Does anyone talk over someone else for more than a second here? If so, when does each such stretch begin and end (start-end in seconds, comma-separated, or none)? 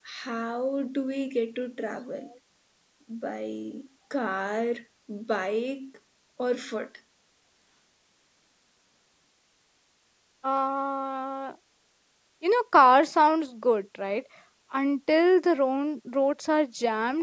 none